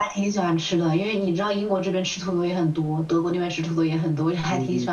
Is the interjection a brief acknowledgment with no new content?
No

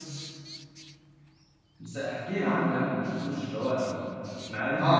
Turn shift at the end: Yes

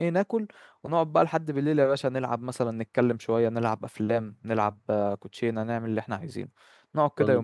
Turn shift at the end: Yes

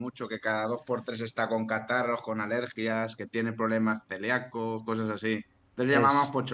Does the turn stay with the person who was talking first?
Yes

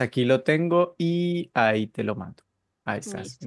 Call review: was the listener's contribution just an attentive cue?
No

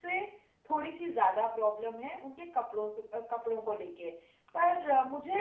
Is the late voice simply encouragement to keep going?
No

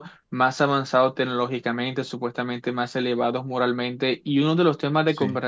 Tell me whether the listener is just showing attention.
Yes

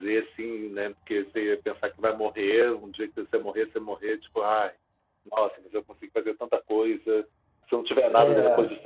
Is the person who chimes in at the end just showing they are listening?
Yes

